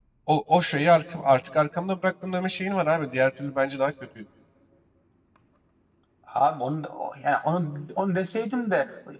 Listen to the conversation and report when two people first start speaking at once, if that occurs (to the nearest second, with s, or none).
none